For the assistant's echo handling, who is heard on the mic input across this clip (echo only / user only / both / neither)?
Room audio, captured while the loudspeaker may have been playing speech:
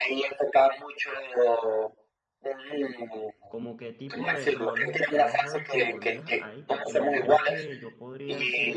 both